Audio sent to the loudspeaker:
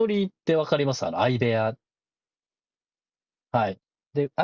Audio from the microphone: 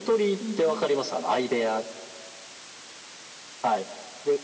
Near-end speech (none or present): present